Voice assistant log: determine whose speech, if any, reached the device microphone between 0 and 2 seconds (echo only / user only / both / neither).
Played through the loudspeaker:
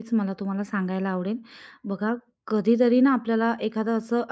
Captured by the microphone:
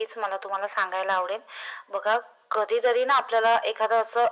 echo only